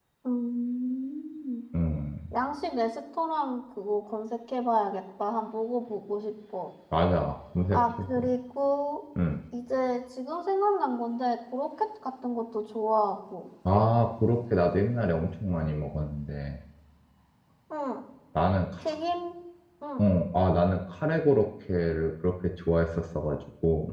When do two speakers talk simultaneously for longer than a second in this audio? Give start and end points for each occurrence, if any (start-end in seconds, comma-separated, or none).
none